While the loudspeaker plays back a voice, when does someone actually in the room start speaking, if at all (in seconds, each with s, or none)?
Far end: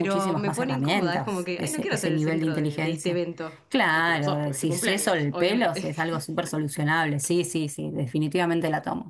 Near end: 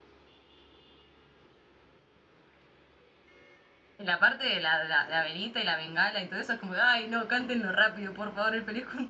4.0 s